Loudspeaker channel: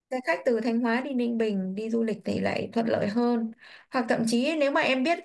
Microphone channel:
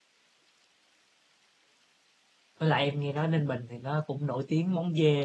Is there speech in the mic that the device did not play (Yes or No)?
Yes